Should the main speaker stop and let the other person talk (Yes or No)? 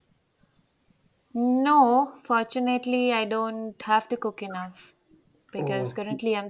No